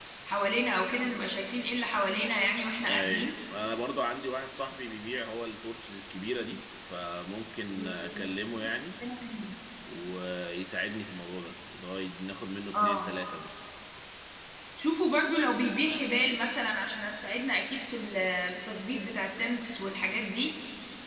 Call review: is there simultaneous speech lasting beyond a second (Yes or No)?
No